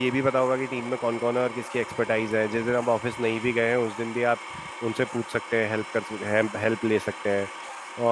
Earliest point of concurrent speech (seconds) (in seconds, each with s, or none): none